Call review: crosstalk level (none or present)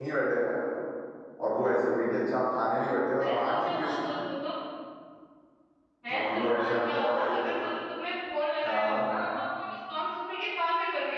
present